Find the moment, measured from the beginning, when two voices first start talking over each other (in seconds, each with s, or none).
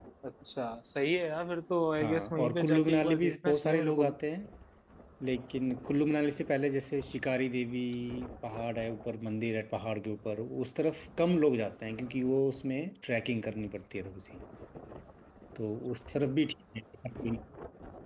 2.0 s